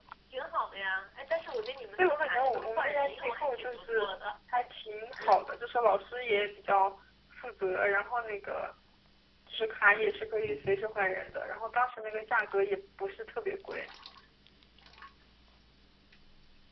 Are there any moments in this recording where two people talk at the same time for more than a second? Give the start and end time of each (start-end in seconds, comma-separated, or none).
2.0-4.1